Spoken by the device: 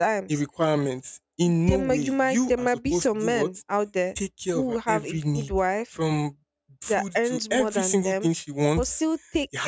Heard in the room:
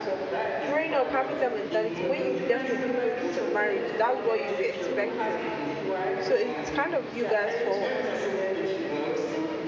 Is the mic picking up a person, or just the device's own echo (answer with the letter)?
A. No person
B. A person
B